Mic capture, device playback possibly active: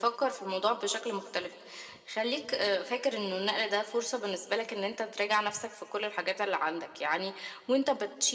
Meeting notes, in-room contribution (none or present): none